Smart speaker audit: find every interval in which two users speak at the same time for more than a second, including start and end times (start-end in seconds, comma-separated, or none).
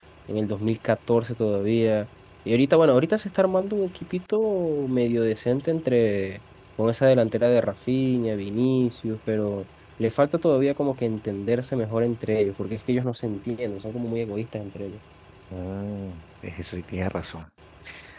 none